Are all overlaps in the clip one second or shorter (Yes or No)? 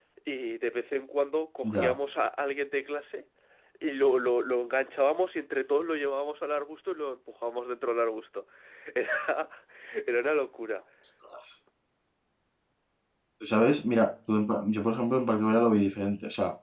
Yes